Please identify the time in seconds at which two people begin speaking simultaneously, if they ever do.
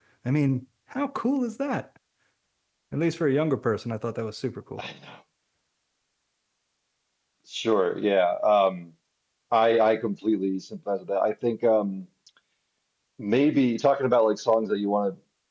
none

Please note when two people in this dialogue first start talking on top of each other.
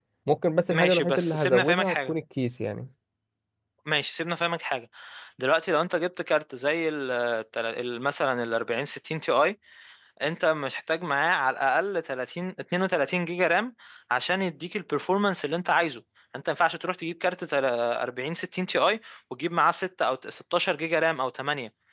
0.7 s

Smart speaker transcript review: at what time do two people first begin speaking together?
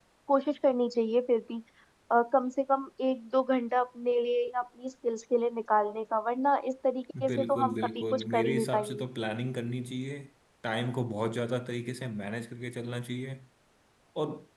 7.1 s

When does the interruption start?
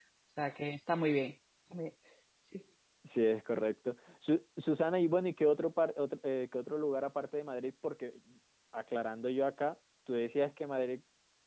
none

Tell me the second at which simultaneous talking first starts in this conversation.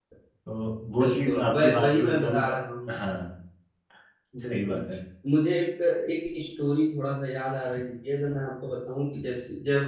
1.0 s

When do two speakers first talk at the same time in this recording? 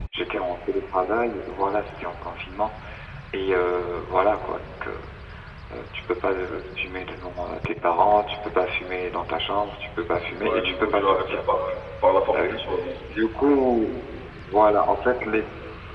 10.4 s

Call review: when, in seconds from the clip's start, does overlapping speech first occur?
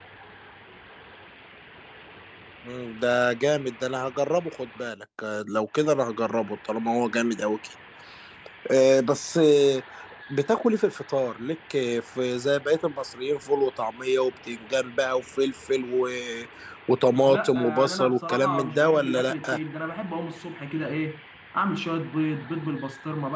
17.3 s

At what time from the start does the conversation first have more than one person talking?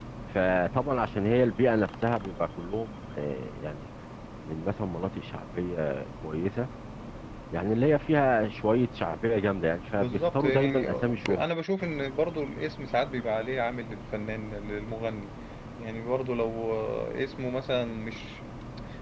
10.0 s

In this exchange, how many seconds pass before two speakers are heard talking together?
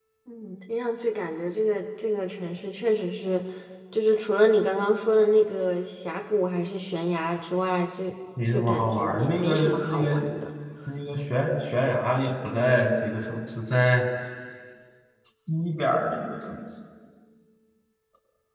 8.4 s

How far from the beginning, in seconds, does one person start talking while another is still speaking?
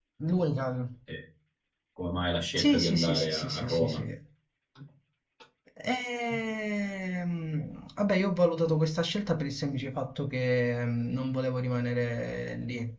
2.6 s

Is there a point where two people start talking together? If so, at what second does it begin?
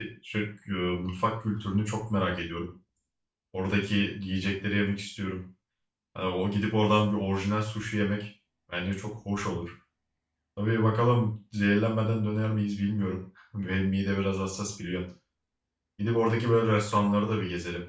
none

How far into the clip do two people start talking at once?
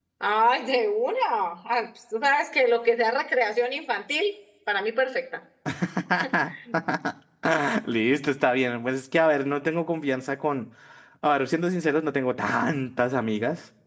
none

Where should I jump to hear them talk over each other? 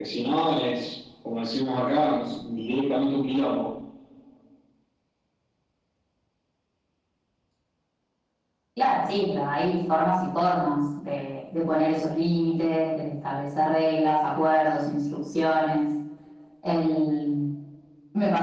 none

